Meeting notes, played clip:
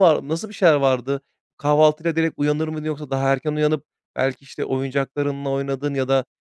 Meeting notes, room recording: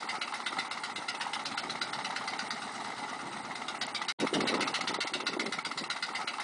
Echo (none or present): none